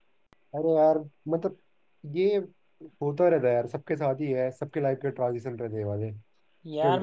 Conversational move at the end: taking over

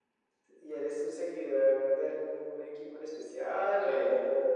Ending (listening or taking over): taking over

